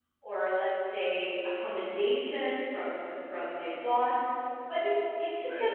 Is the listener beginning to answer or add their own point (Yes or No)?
No